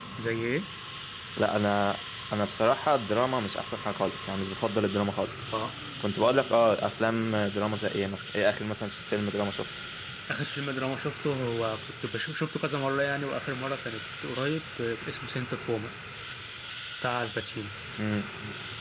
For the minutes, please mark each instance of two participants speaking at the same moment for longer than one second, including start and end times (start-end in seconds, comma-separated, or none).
none